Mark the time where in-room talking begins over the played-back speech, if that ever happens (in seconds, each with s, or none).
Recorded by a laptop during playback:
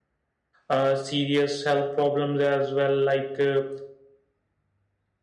0.7 s